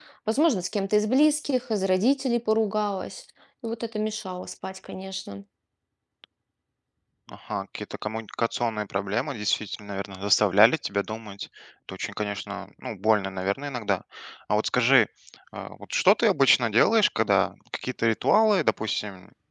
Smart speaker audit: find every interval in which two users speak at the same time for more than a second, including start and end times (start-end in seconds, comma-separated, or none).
none